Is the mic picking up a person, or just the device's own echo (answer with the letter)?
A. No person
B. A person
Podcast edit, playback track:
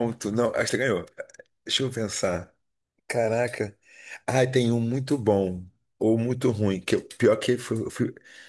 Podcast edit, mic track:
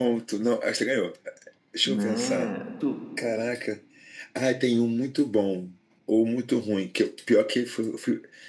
B